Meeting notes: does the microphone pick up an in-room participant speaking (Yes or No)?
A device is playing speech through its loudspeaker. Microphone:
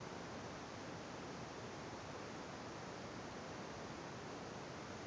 No